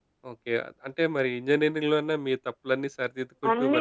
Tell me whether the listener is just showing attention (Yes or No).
No